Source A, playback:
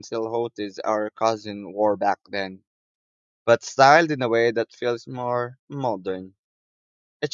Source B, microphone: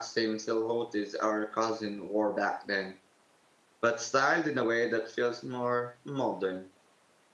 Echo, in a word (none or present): present